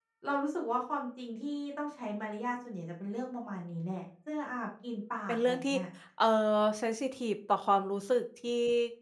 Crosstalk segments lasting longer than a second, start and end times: none

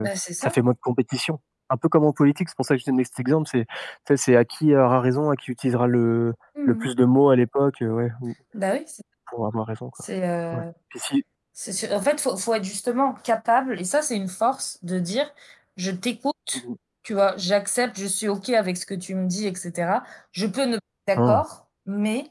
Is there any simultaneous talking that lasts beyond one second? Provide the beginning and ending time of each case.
none

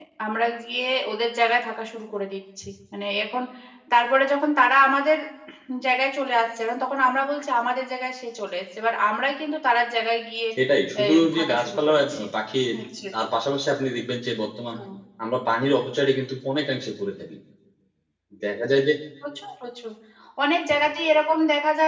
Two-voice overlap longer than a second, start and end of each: 11.0-12.2

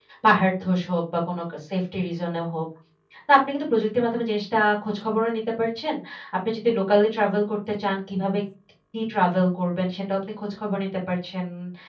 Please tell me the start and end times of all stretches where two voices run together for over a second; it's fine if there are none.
none

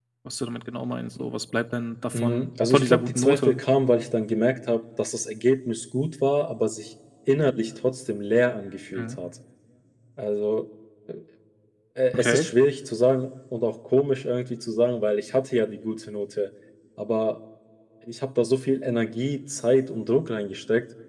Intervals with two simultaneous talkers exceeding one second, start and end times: 2.1-3.6

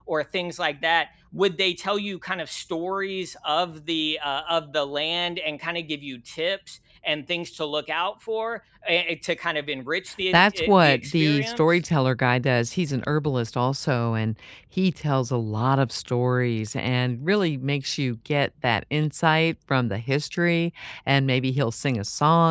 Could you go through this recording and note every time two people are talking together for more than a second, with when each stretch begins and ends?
10.3-11.8

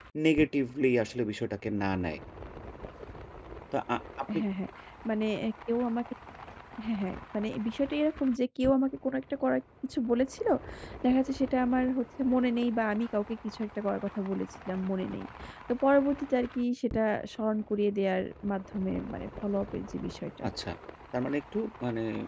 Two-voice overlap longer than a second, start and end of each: none

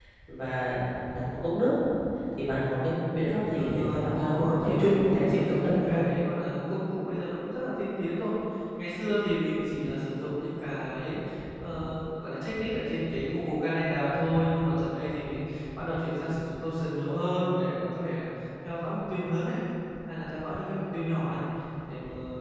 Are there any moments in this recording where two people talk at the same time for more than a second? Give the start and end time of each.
3.6-6.0

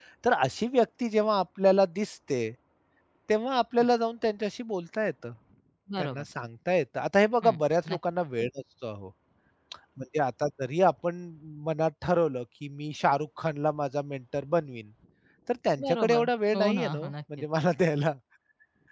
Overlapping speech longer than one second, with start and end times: 15.8-17.4

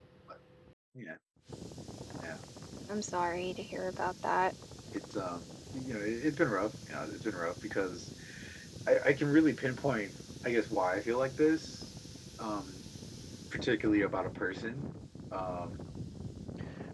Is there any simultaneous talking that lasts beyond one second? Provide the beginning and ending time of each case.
none

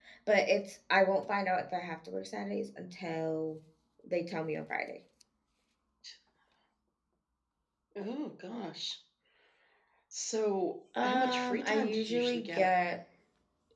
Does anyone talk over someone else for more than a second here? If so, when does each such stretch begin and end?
11.0-12.7

